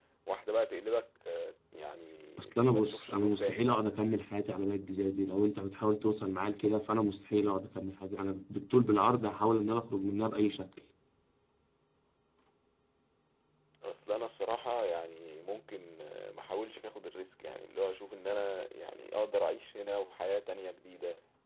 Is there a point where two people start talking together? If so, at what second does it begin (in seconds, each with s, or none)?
2.4 s